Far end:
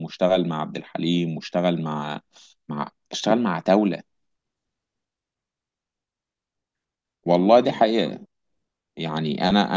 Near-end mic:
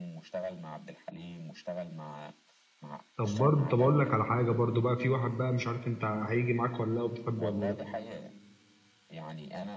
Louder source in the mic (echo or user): user